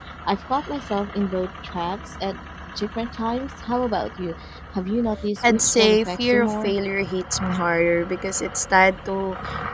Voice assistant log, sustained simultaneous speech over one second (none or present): present